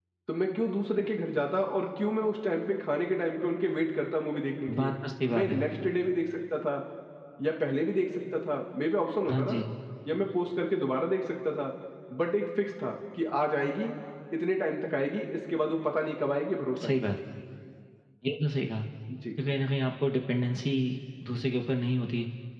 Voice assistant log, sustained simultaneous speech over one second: none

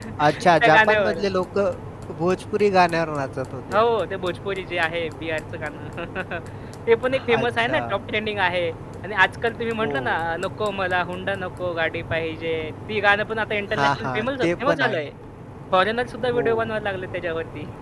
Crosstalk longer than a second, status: present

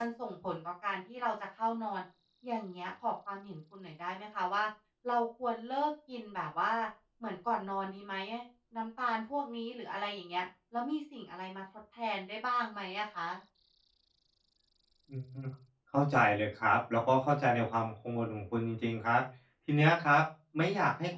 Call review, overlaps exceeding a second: none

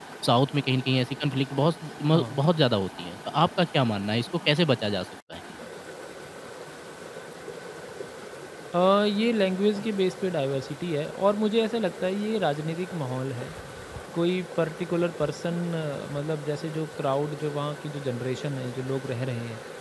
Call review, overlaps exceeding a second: none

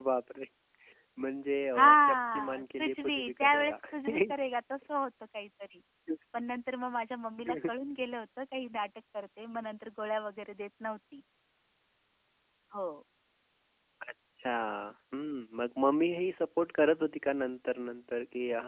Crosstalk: present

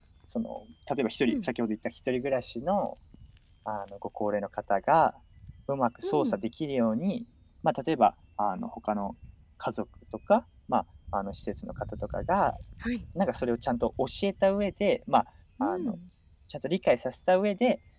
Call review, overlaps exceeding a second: none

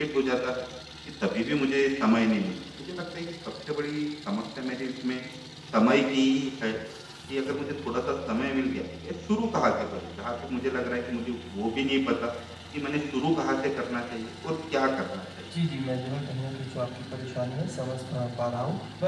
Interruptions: none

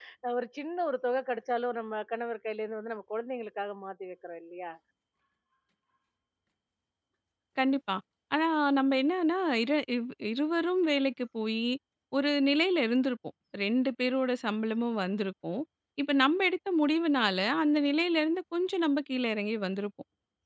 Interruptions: none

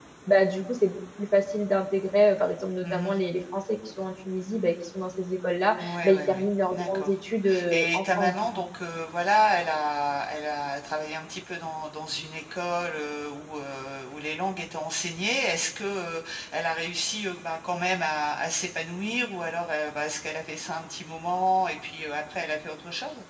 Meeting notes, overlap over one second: present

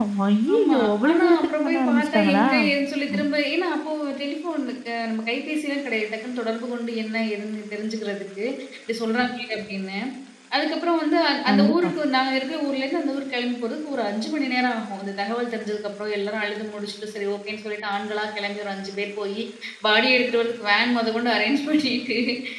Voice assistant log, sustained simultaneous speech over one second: present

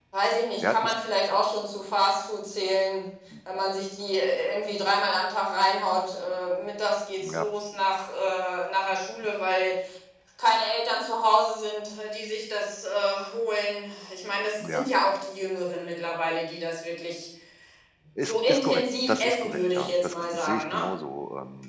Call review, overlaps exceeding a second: present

